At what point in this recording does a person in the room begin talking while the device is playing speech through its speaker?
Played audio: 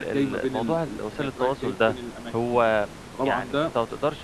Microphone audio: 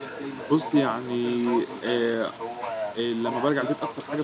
0.4 s

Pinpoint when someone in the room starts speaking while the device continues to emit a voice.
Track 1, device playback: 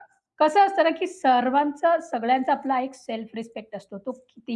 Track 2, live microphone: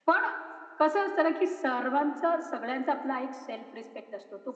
none

